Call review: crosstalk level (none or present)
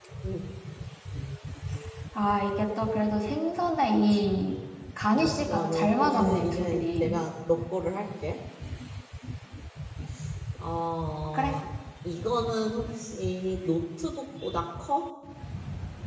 present